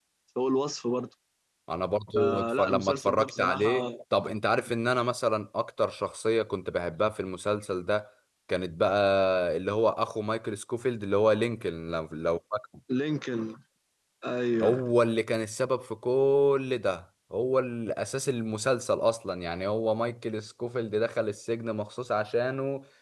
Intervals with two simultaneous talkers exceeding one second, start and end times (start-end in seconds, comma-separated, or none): 2.1-3.9